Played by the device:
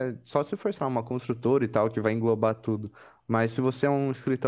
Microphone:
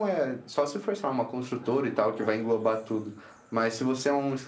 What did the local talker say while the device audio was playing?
none

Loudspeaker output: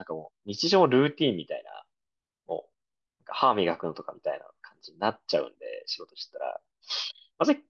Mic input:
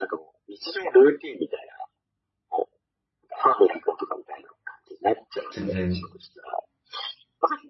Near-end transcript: 全然、

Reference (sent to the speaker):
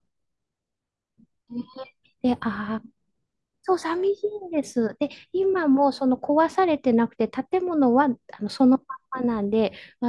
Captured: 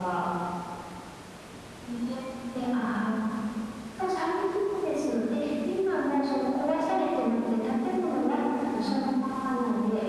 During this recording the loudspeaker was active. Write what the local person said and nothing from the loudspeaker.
none

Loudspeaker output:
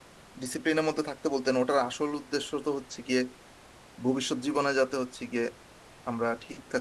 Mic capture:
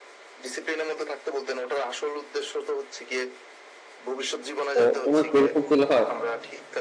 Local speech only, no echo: তো তোমার কি এরকম ফিল হয়

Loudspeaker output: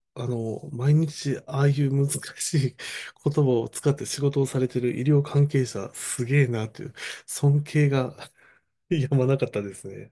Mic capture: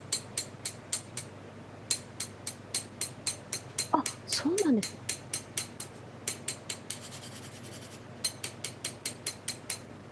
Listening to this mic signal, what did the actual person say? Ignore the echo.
あ、そうなんです。

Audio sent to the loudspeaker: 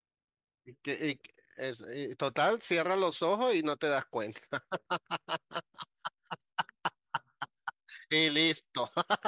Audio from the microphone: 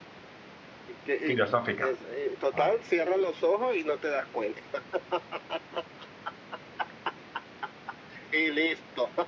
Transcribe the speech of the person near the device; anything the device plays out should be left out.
Filosófica. Vale.

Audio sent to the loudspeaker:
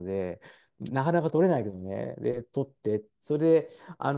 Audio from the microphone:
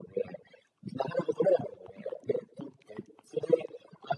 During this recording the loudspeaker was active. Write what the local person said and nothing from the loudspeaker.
none

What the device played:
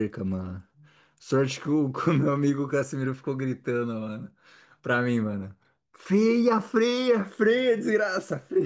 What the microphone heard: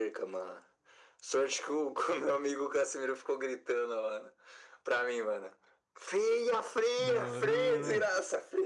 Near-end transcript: Não, não, não,

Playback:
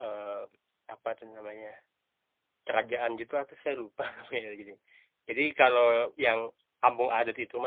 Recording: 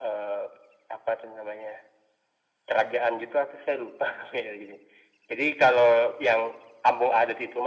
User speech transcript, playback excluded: none

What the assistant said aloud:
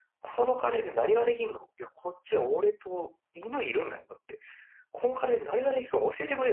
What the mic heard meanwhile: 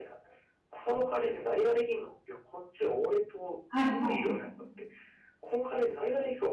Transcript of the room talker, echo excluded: はい、はい。

